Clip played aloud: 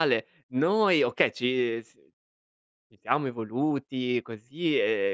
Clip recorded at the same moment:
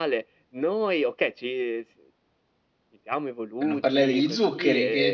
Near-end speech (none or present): present